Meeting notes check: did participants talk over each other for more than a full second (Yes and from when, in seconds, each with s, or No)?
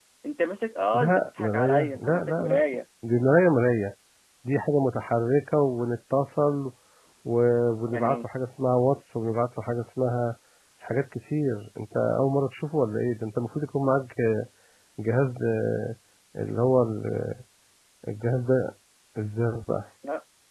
Yes, from 0.9 s